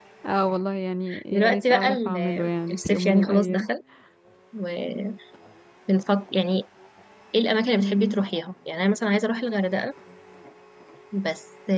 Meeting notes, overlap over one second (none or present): present